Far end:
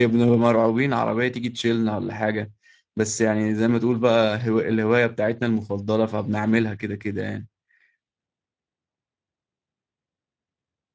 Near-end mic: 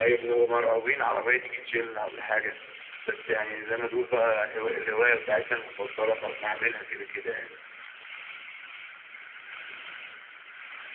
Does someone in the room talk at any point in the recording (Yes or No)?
No